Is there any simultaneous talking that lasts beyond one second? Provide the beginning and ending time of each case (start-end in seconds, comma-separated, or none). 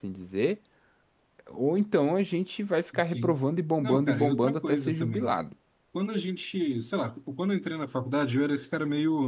3.8-5.3